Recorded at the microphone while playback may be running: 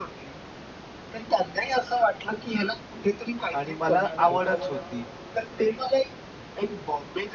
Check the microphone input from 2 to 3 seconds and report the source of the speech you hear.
echo only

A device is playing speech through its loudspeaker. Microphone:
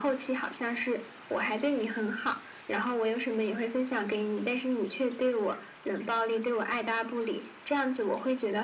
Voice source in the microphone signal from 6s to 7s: echo only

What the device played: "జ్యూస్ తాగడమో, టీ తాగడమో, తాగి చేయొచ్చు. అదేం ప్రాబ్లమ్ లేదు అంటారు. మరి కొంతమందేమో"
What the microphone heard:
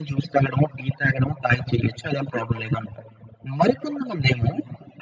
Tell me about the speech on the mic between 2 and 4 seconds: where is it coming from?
echo only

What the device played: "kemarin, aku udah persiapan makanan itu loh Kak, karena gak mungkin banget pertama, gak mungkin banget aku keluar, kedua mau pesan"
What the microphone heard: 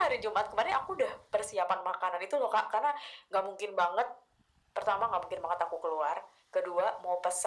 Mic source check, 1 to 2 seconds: echo only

